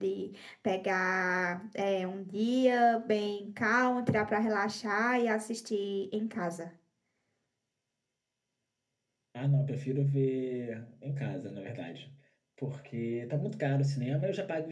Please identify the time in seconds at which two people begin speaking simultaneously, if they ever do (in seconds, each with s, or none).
none